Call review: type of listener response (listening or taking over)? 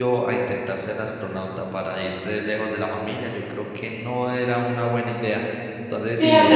taking over